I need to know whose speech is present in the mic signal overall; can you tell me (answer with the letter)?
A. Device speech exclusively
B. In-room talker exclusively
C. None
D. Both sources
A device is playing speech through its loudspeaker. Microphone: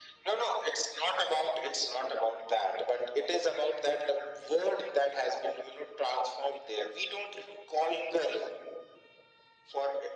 A